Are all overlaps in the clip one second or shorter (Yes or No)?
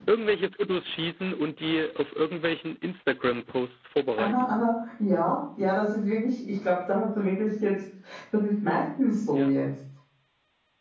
Yes